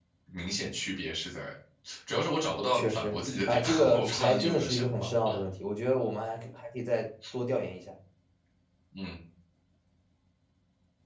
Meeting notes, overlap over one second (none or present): present